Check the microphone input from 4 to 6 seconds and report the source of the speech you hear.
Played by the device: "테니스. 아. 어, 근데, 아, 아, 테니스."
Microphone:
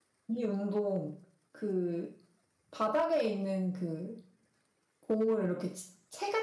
user only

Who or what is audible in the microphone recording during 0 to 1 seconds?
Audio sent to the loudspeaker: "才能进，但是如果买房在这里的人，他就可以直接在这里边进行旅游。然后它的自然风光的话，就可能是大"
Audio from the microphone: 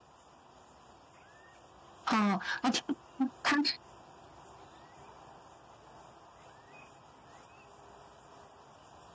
neither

